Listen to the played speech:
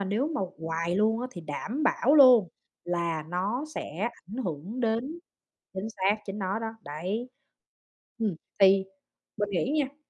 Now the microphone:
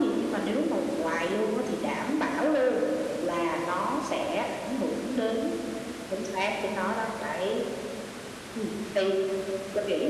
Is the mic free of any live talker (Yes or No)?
Yes